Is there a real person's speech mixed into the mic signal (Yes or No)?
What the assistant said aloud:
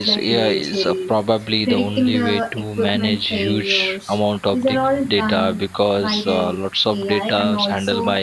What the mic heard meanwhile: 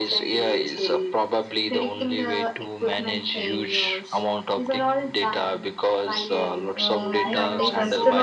Yes